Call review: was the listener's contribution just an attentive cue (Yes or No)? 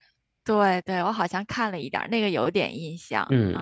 No